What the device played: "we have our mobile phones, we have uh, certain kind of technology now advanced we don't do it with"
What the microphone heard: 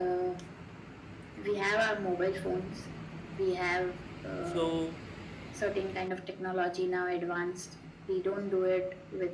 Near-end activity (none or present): present